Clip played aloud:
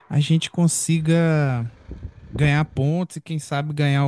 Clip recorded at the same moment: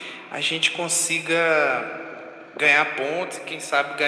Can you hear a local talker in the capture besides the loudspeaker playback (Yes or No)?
No